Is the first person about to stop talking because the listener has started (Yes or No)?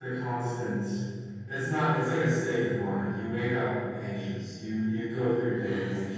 No